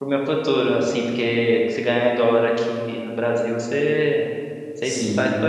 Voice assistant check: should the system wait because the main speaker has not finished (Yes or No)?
No